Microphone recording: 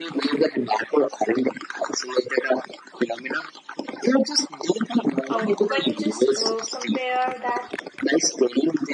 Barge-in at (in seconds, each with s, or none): 5.2 s